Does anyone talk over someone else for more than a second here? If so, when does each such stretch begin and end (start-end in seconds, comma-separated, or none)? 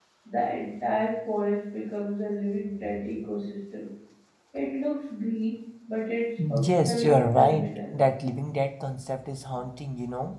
6.7-8.0